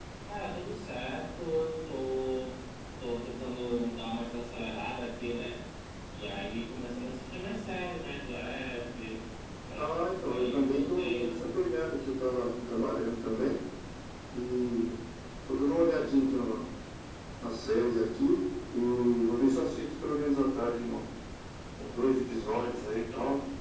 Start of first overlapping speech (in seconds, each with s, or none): 9.7 s